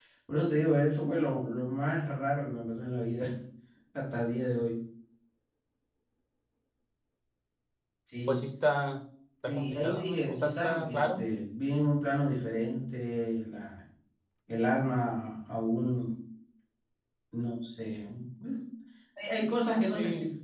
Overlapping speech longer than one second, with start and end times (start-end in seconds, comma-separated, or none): 9.4-11.2